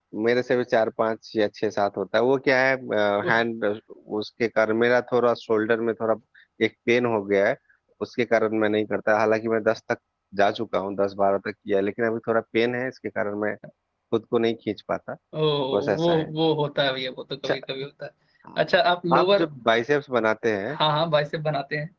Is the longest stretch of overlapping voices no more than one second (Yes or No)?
Yes